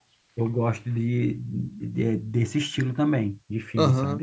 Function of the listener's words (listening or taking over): taking over